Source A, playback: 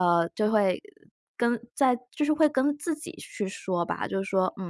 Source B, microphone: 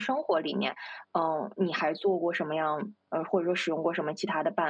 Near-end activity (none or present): present